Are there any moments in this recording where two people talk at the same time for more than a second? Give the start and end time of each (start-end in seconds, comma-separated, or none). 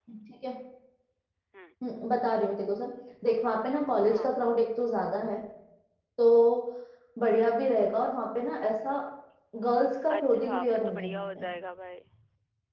10.2-11.5